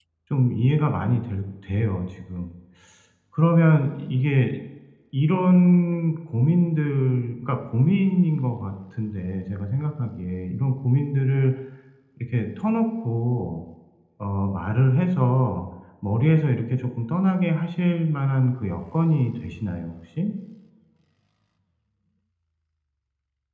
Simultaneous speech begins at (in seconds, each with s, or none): none